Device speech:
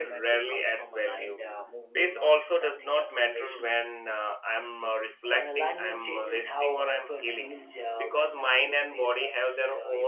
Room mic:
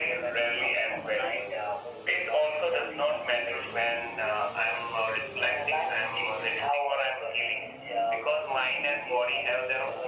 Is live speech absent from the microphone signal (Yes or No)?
Yes